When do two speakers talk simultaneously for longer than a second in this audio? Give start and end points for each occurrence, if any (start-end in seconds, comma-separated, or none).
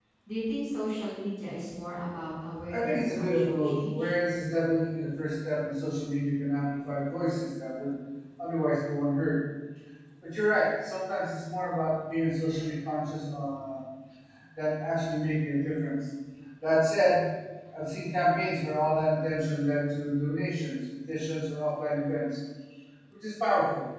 2.7-4.1